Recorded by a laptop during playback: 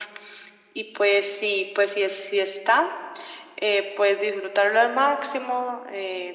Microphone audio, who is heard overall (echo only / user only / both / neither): echo only